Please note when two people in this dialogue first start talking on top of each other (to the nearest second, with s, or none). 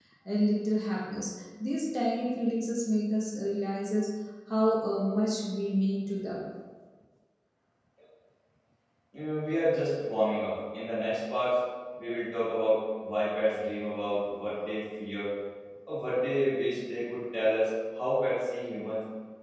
none